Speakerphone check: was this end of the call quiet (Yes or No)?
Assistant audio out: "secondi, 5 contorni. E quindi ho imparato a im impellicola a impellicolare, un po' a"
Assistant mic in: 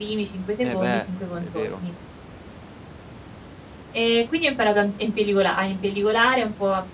No